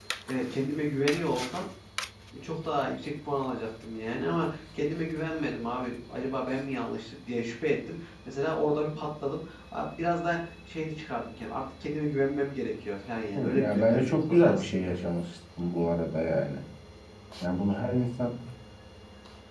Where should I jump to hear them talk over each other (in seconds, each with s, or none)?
13.3 s